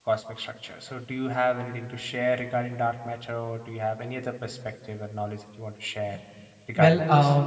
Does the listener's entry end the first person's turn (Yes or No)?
Yes